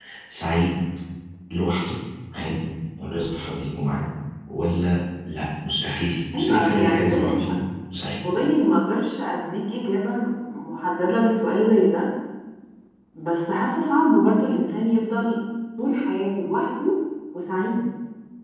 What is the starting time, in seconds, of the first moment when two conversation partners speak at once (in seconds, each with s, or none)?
6.3 s